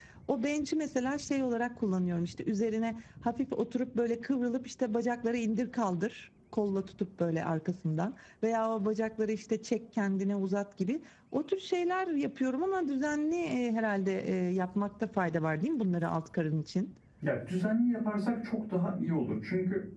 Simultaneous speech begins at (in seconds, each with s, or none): none